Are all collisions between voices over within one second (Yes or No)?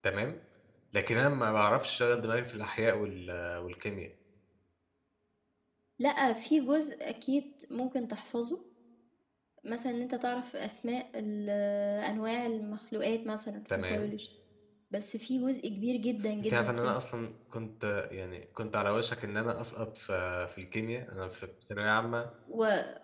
Yes